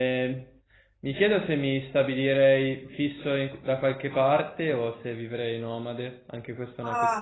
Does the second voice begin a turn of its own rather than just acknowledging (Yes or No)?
Yes